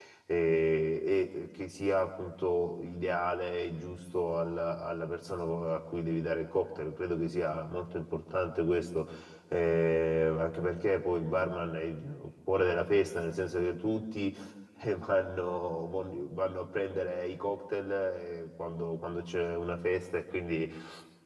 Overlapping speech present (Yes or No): No